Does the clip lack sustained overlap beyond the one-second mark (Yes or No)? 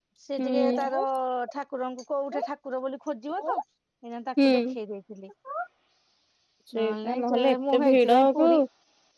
No